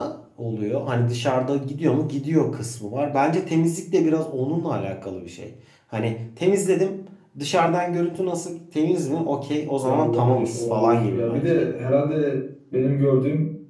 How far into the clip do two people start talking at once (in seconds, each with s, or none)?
9.8 s